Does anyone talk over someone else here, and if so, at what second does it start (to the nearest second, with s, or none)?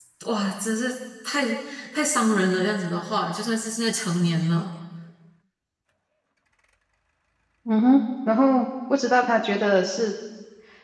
none